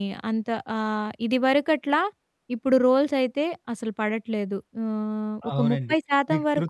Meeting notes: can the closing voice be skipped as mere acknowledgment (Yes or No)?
No